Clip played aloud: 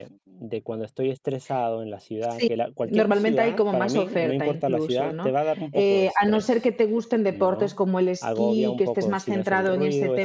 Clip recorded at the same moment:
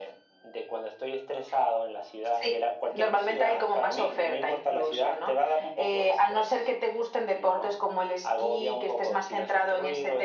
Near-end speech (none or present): none